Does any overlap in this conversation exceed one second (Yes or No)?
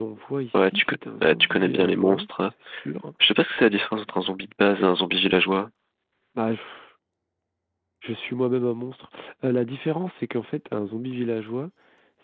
Yes